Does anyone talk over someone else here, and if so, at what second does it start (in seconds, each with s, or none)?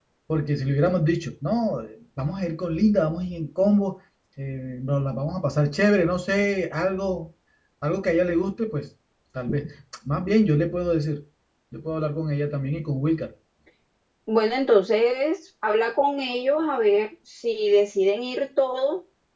none